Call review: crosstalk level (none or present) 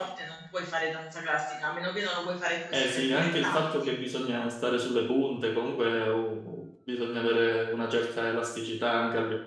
present